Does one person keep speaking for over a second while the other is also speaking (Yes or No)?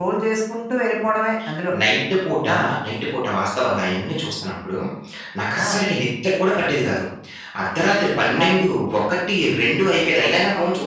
No